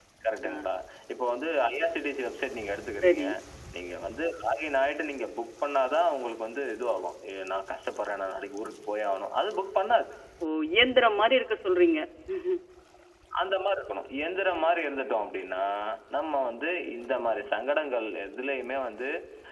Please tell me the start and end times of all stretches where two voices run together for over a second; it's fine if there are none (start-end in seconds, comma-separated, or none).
none